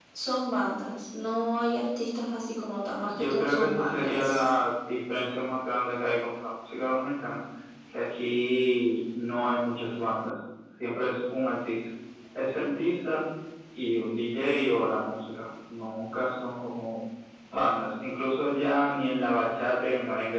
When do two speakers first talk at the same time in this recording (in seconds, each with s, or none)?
3.0 s